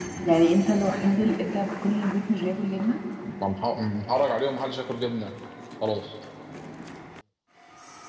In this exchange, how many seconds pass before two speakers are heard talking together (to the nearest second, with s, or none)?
none